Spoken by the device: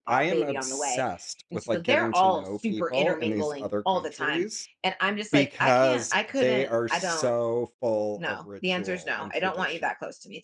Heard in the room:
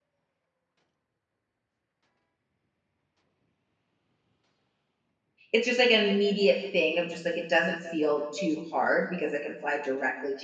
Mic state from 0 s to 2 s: neither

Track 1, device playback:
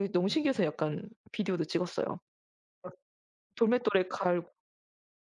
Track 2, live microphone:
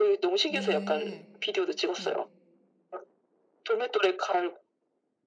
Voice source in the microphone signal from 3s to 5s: echo only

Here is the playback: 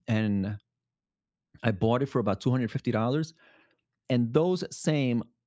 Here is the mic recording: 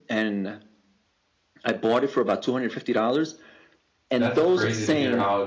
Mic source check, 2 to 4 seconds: echo only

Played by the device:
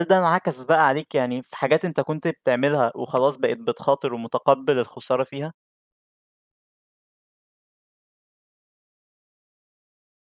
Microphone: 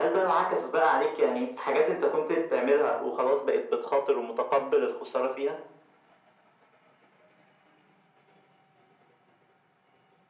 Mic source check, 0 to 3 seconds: echo only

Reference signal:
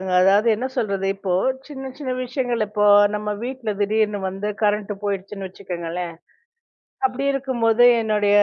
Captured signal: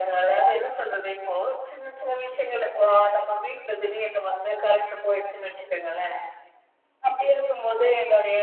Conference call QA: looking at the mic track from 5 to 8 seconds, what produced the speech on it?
echo only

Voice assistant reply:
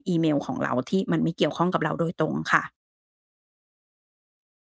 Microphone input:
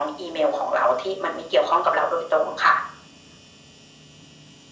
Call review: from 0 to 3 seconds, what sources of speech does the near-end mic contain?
echo only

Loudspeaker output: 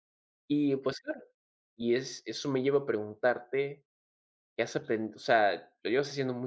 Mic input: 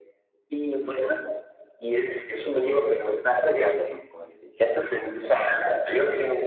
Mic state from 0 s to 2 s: echo only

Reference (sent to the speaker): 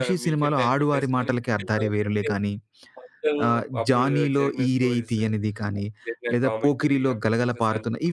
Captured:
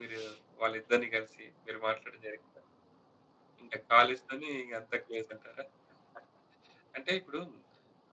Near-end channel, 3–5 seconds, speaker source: user only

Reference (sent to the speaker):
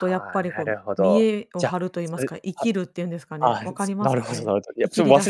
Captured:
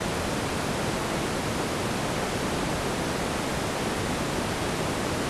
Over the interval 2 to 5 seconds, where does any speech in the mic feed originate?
neither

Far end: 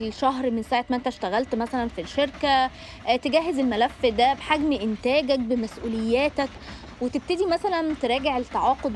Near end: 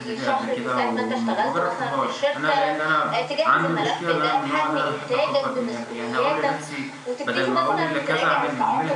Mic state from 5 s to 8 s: both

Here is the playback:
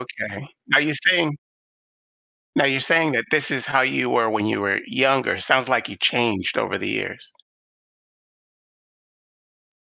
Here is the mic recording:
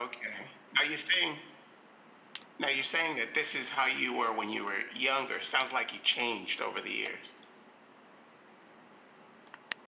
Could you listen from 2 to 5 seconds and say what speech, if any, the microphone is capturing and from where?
echo only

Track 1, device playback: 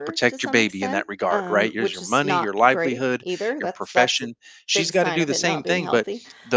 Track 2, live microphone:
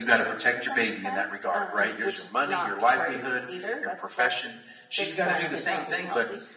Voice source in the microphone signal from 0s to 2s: echo only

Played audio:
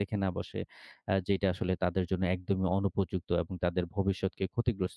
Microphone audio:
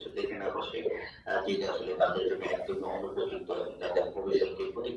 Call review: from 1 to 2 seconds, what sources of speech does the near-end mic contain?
echo only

